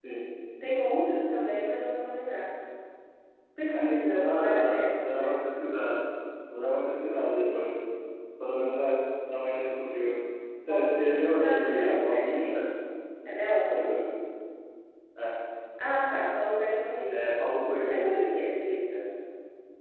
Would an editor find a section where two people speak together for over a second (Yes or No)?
Yes